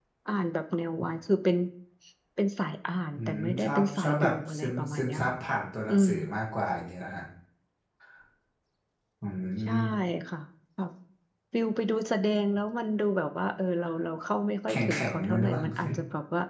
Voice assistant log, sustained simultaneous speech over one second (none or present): present